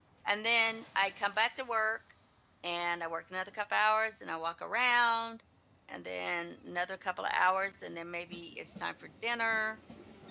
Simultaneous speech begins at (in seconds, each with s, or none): none